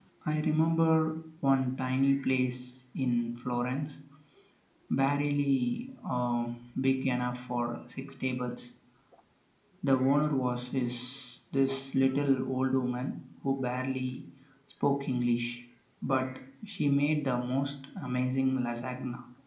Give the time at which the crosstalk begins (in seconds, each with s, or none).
none